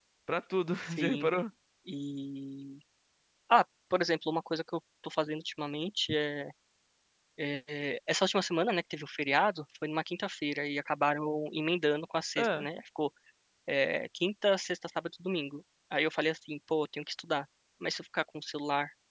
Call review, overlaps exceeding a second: none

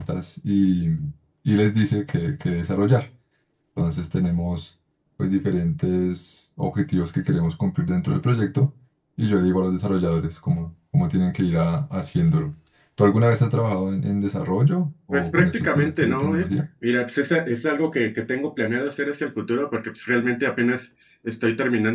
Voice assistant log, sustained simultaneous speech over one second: present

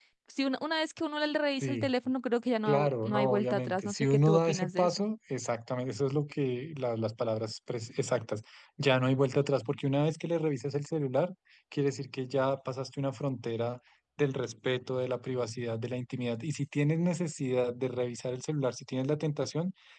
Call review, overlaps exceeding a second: present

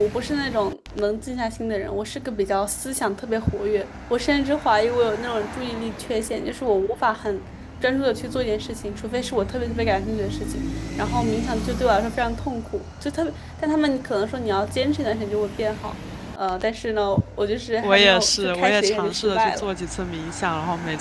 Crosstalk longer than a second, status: present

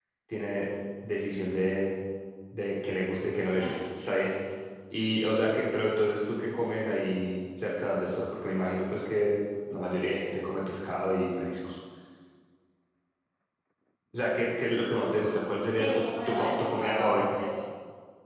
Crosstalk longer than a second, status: present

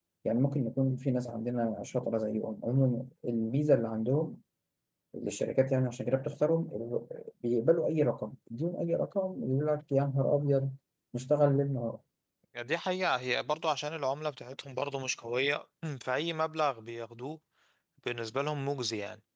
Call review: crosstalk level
none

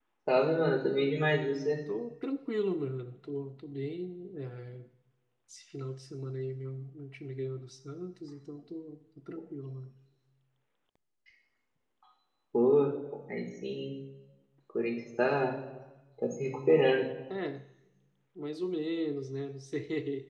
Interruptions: none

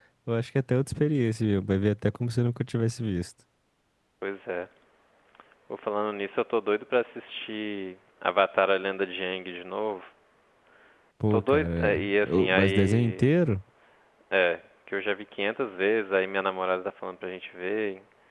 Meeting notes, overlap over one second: present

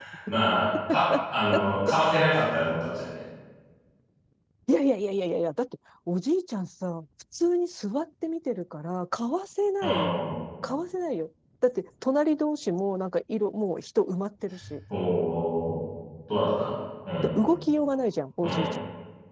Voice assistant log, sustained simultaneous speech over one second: none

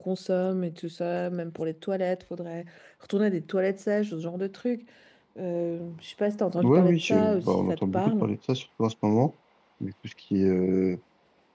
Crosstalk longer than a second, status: present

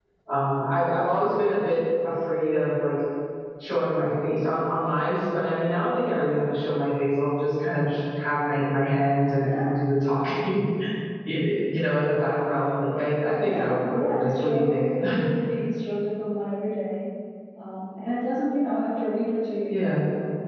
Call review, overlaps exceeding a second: present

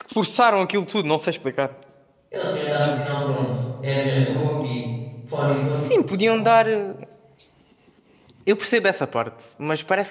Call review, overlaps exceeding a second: none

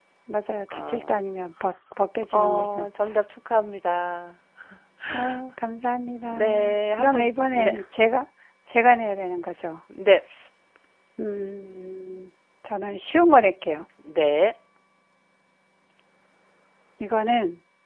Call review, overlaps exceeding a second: present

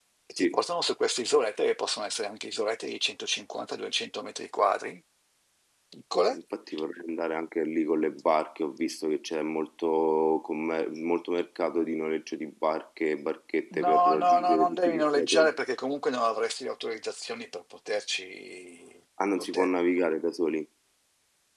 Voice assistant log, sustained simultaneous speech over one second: present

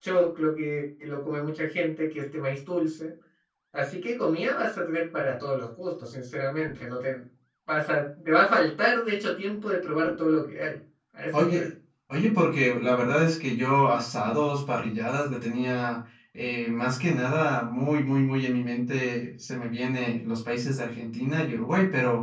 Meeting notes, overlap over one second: none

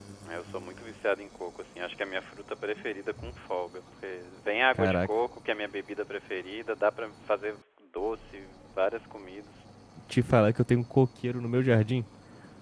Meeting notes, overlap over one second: none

